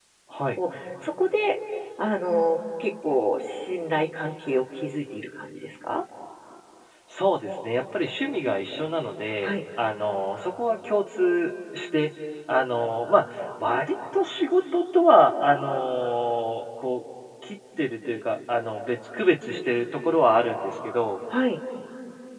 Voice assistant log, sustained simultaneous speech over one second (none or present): none